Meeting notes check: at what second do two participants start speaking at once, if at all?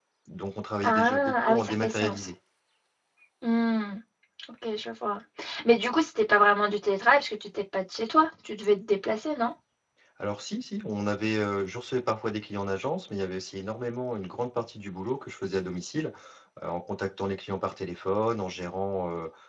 1 s

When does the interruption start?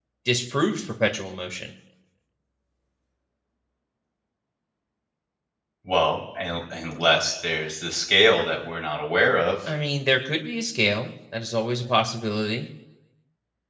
none

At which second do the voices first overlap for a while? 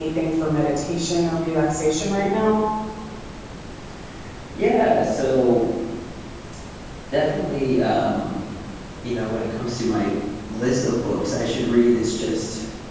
none

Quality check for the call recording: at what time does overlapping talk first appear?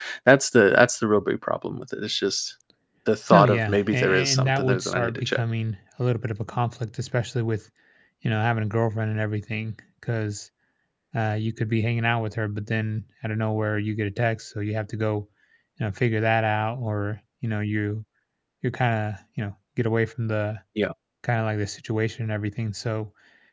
3 s

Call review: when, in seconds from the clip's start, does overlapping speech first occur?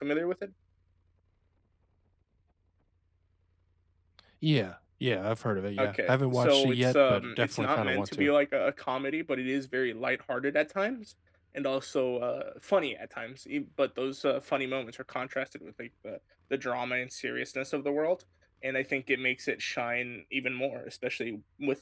6 s

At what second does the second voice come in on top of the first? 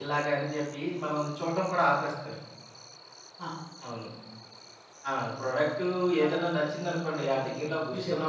6 s

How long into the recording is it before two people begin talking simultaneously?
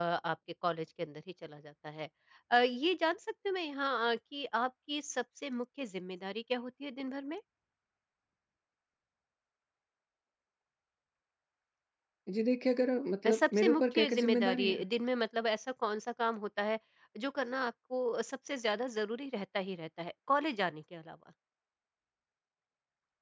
13 s

